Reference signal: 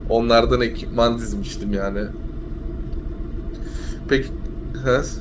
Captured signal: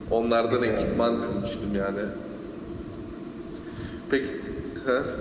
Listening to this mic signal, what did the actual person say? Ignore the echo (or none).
Biliyorum biliyorum.